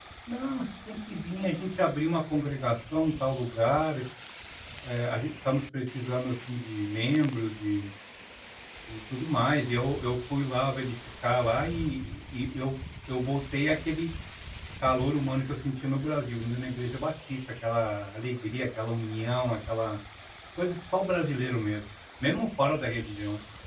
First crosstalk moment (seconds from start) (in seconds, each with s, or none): none